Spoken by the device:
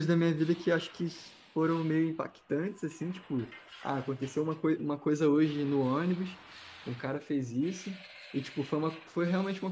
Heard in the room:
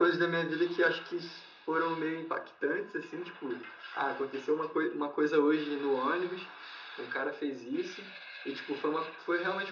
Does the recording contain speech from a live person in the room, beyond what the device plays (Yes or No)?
No